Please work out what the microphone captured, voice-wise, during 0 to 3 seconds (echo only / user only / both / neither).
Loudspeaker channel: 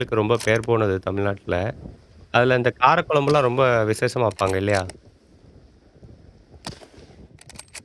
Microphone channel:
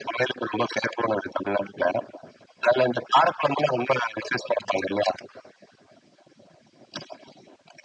echo only